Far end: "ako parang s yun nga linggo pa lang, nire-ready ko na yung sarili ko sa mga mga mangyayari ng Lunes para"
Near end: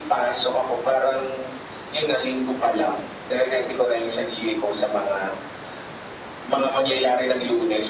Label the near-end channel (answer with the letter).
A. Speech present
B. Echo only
B